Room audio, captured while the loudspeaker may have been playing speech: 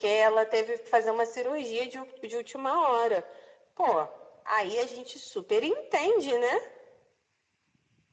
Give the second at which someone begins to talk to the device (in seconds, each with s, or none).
none